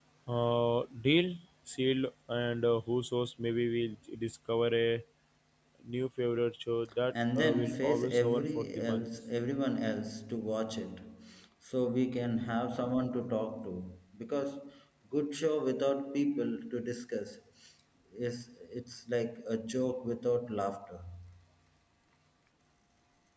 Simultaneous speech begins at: 7 s

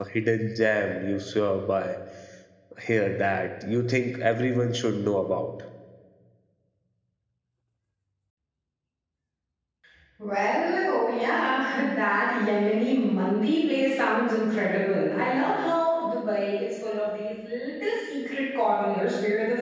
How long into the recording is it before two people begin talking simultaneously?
none

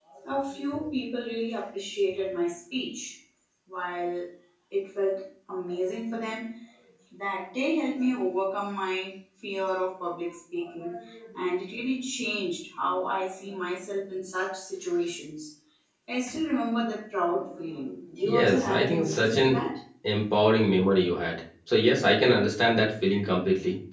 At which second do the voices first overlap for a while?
18 s

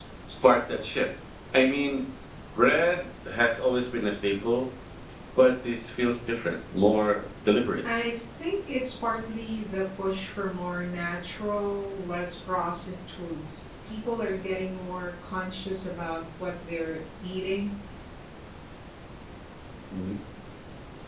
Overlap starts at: none

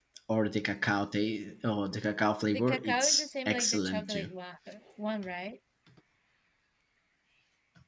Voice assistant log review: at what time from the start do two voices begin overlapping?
2 s

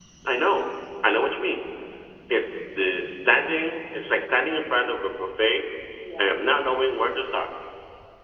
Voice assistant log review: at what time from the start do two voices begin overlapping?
6 s

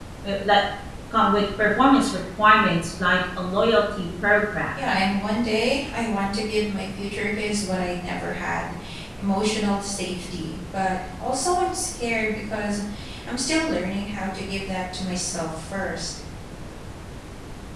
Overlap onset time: none

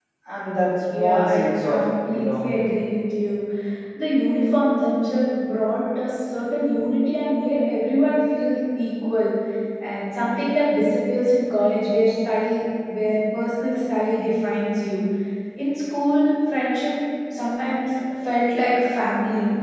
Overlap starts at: 1 s

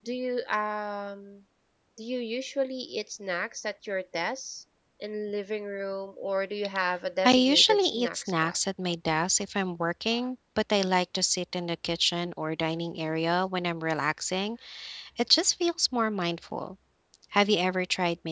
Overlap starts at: 7 s

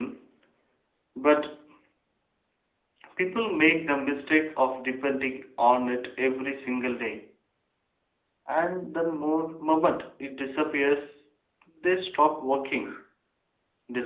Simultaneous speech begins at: none

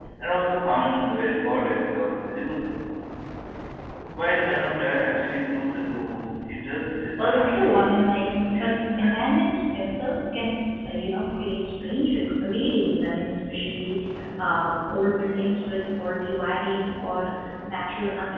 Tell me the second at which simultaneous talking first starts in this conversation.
7 s

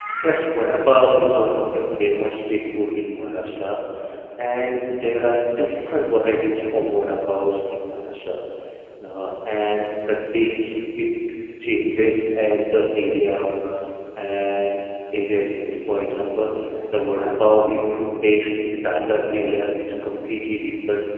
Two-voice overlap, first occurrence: none

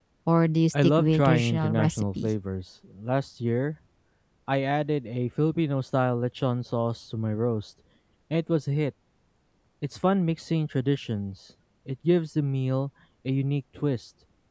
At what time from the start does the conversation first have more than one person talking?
1 s

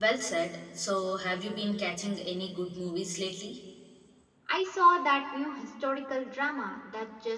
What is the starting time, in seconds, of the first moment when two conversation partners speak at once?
none

